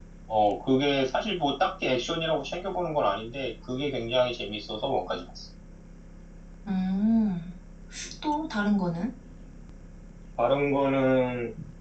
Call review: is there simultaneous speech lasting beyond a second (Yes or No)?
No